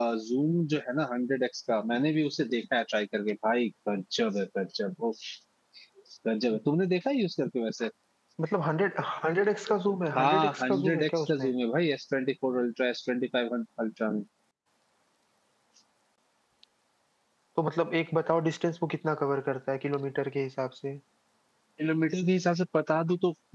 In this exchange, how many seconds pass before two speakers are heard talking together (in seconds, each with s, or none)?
10.1 s